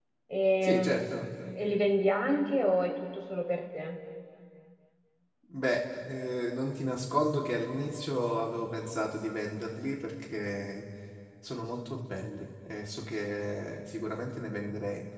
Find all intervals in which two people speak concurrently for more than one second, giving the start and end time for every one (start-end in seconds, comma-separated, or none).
none